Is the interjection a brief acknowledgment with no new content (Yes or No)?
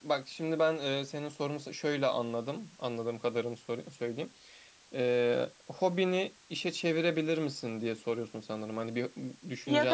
No